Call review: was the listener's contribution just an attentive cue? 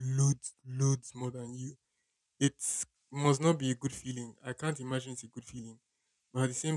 Yes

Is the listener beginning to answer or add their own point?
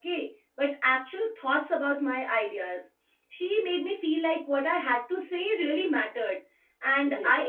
No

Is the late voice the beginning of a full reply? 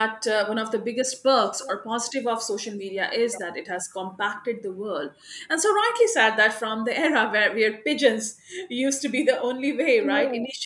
No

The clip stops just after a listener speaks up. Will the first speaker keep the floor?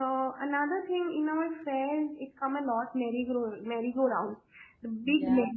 Yes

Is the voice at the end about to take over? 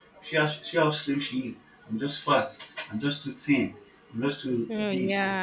No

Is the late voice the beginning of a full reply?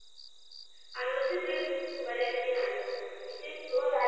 Yes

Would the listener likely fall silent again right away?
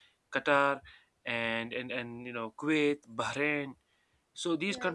No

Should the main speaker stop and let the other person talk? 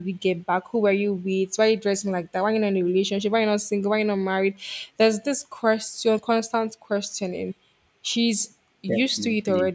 No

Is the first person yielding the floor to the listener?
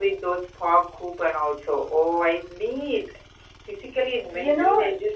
Yes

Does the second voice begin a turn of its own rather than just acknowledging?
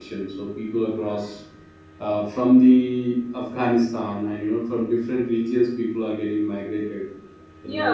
Yes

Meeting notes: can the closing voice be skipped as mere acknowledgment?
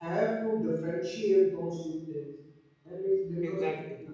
Yes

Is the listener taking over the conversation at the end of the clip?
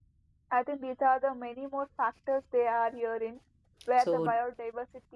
No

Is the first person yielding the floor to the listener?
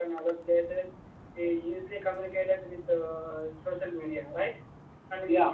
No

